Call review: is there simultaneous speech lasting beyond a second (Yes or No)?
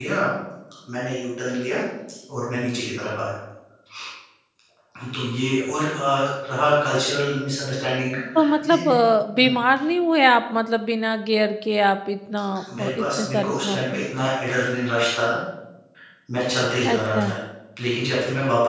Yes